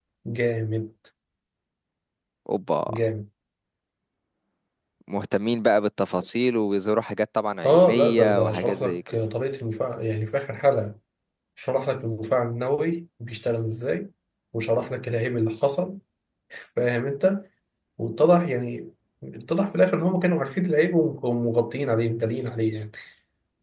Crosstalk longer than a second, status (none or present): present